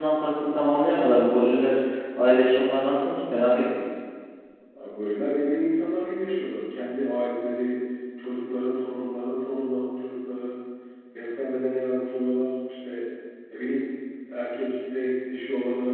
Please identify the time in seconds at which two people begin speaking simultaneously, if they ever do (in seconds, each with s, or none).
none